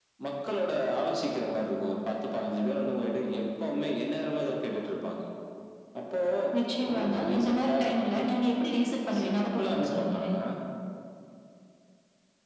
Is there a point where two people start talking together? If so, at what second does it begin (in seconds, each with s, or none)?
6.9 s